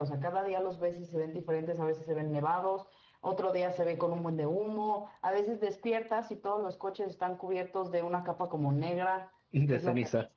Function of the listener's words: listening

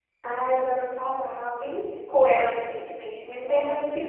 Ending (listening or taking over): taking over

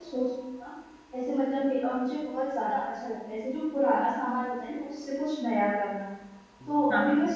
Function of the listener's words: listening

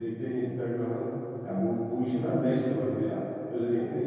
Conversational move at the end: listening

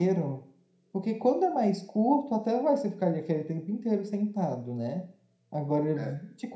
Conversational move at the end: listening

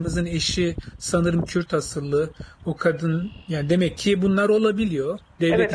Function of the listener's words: taking over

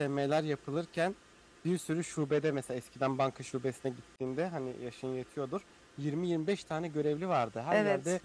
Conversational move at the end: listening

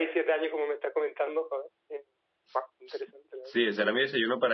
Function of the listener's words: taking over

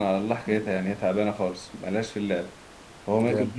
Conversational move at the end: listening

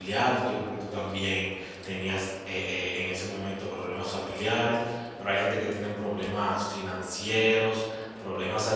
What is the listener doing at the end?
listening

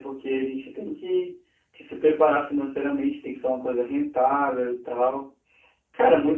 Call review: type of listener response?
listening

